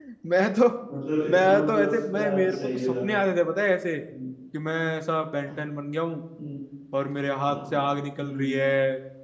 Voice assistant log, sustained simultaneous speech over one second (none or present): present